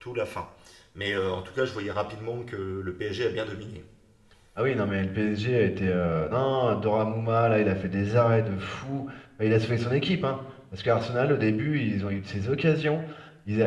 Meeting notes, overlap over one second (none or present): none